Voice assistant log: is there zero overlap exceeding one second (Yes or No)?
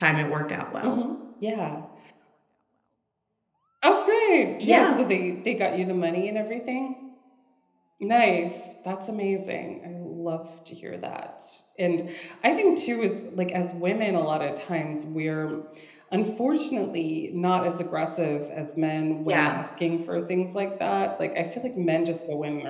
Yes